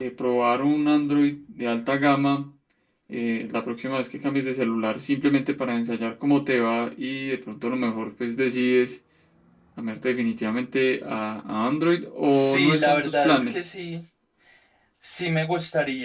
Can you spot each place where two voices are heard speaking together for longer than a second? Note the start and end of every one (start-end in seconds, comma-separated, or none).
12.3-13.6